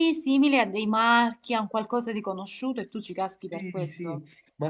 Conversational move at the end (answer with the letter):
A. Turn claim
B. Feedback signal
A